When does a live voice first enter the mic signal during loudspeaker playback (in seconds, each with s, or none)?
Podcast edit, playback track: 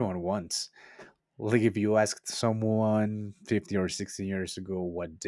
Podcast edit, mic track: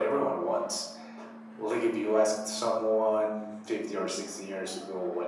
none